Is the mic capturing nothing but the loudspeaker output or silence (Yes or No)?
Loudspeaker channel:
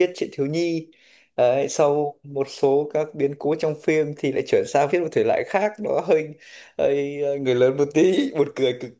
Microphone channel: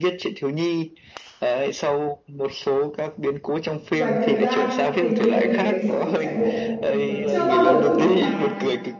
No